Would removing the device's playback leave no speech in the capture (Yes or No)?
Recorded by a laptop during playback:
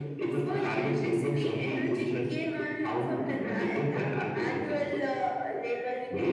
No